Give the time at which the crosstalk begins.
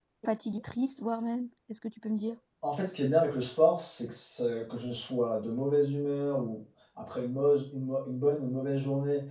none

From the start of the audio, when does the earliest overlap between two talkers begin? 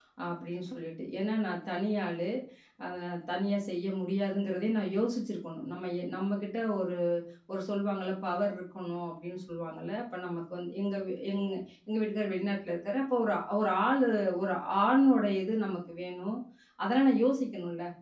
none

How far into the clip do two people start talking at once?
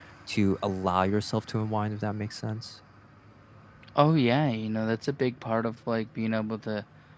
none

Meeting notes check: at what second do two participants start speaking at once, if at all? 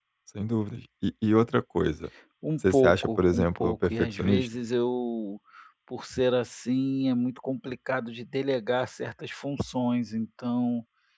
3 s

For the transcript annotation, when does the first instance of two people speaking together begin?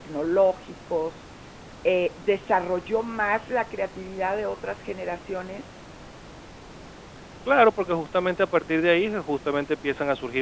none

